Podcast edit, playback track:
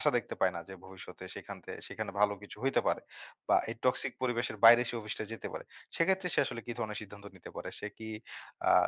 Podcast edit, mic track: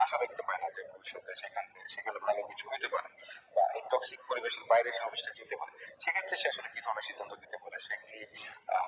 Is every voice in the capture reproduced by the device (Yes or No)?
Yes